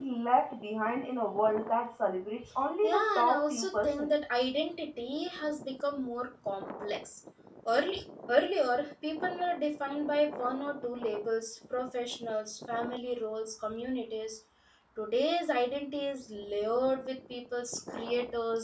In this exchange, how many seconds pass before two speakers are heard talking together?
3 s

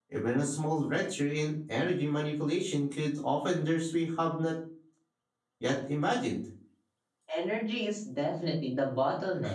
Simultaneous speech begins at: none

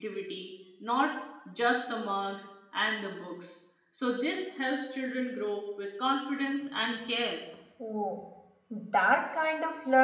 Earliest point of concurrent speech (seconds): none

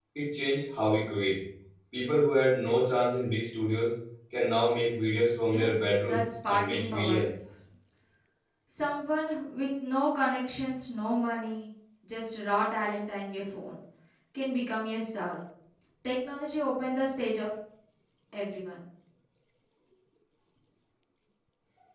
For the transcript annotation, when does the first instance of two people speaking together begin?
5 s

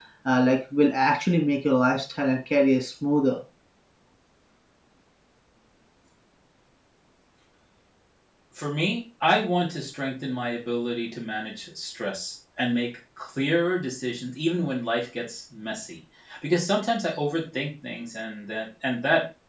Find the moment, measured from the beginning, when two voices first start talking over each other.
none

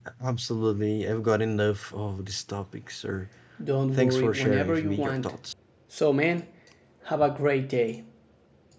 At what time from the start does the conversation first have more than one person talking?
4 s

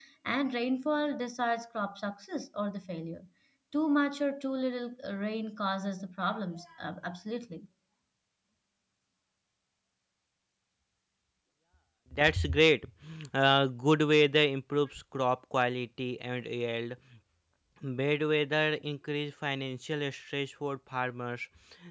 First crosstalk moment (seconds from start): none

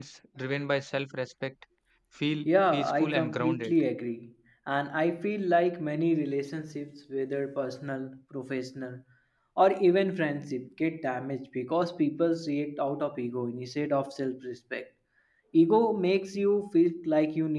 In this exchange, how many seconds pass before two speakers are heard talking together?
2 s

